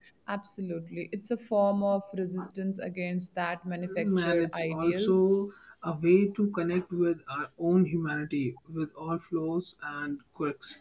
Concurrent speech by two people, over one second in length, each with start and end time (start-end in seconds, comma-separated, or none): 3.9-5.1